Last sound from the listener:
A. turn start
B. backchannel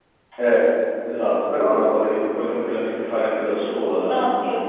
A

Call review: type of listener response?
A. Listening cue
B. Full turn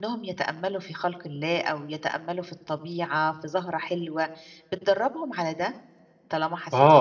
B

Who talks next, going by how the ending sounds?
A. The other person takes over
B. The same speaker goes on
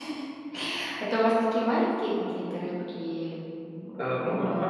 A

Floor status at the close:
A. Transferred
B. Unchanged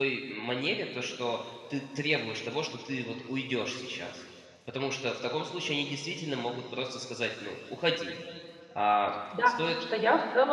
A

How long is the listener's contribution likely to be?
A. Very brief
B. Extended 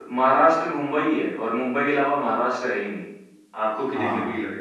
B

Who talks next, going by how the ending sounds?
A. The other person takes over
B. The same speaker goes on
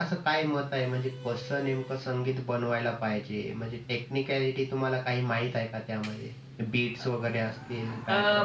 A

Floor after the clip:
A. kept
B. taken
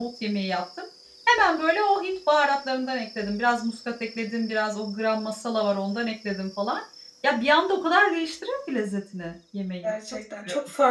B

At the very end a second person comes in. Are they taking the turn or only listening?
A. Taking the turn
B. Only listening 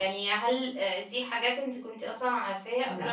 B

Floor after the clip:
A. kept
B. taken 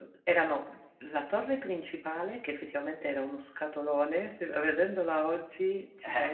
B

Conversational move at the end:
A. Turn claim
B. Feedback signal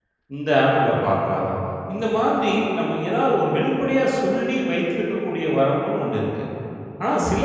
B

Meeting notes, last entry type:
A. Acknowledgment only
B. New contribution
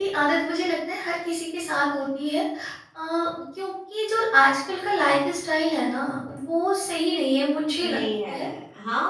B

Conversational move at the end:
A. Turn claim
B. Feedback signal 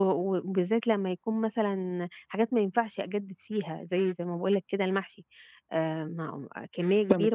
A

